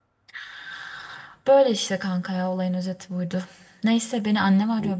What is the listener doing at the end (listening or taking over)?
listening